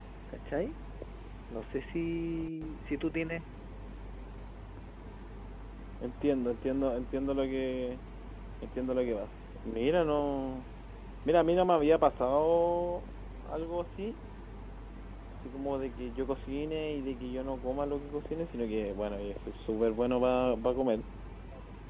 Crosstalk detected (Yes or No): No